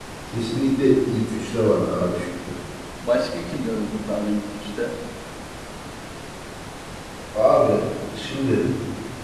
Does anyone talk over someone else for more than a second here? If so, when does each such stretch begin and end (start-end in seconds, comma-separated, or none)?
none